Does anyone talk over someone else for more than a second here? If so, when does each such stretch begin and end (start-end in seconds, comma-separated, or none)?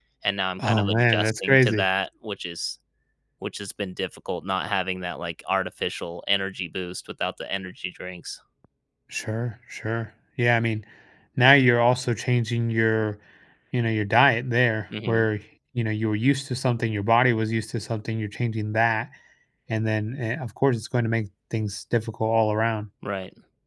0.6-1.9